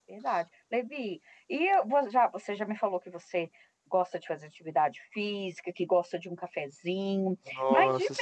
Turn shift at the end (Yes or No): No